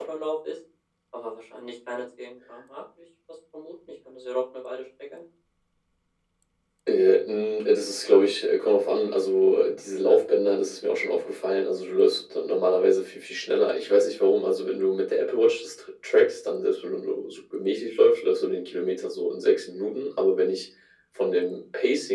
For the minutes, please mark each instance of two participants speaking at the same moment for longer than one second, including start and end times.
none

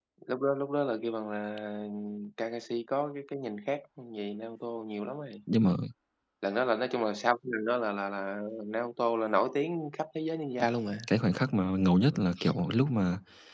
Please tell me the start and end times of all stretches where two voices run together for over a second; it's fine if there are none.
none

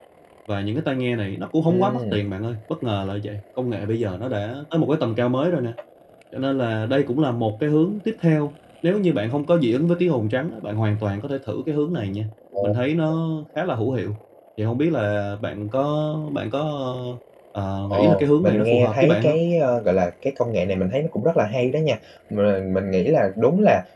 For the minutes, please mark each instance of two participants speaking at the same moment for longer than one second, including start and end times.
17.8-19.4

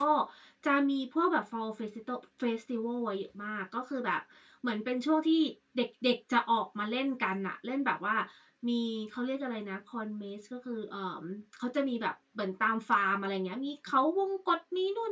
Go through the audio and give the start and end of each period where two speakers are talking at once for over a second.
none

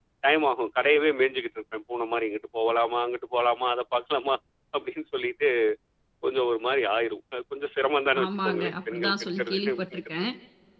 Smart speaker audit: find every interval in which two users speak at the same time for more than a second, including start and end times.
8.2-10.0

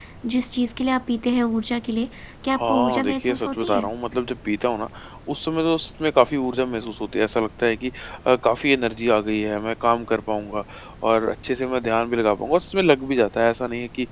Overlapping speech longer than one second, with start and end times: 2.6-3.9

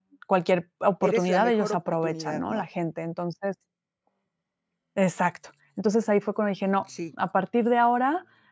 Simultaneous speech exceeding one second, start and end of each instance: 1.0-2.6

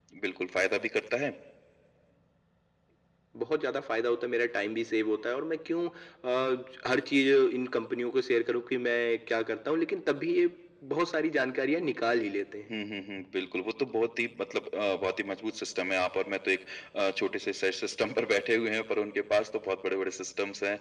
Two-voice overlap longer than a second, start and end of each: none

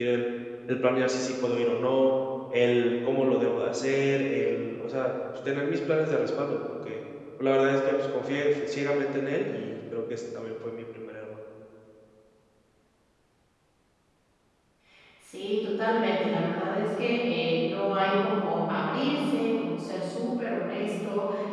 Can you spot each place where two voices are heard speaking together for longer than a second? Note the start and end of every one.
none

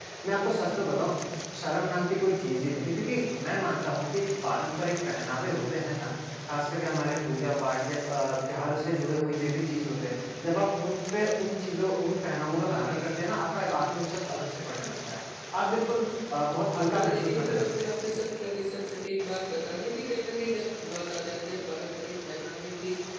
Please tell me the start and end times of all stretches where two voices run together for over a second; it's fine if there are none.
16.8-18.2

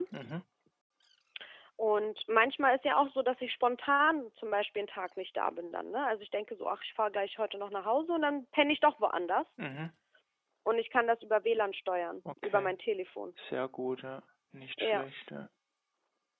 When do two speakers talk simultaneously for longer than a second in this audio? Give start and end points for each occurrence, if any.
none

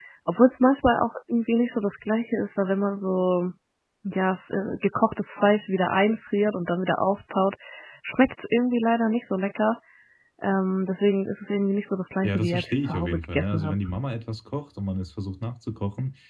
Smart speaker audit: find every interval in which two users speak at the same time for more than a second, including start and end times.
12.2-13.7

